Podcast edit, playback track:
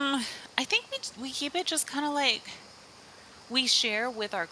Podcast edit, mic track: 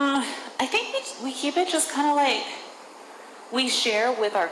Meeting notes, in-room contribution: none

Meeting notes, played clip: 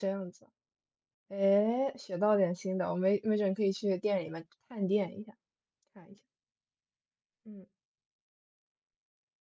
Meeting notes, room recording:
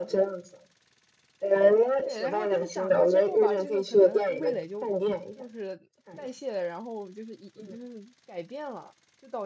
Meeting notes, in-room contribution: present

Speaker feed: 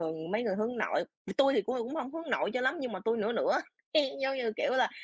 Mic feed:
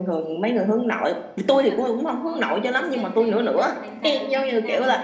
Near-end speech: present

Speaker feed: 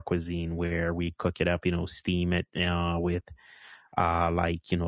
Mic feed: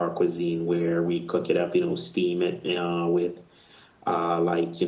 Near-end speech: none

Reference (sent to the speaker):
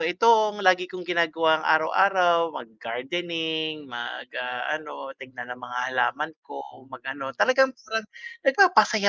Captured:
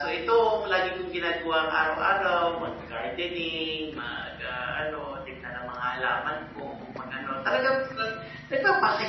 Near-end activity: none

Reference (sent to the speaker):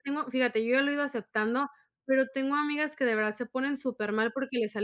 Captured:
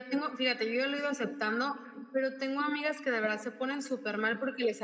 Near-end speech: none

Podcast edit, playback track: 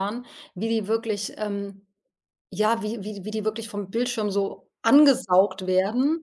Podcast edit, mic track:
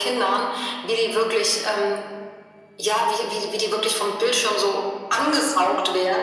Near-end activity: none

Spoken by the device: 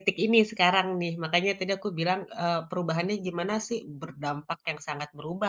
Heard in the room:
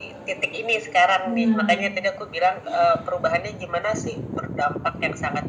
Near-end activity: present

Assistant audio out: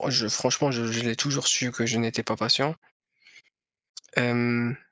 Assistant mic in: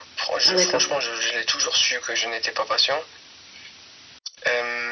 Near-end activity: present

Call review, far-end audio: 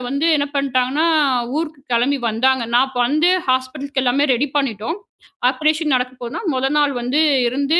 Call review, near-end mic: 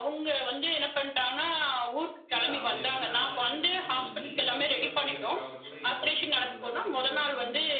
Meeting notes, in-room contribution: present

